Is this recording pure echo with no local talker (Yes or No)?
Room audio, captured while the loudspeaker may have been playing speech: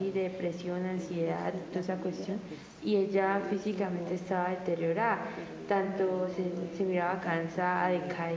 No